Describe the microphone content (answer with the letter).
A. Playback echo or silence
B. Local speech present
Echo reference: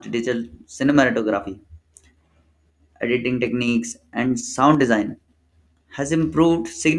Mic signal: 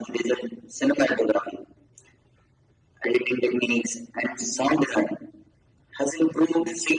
A